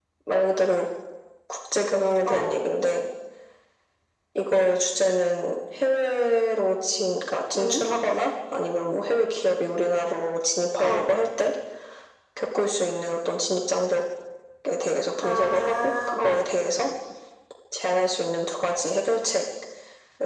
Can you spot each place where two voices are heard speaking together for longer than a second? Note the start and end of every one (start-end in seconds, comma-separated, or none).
15.2-16.5